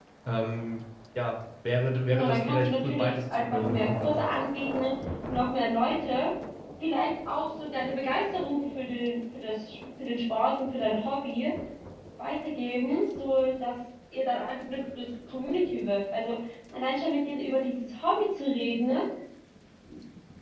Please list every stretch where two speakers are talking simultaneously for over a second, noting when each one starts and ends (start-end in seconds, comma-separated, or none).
2.1-4.2